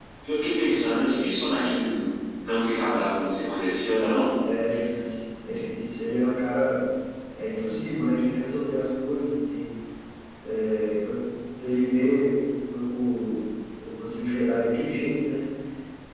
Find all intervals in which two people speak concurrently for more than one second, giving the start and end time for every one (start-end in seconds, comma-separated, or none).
none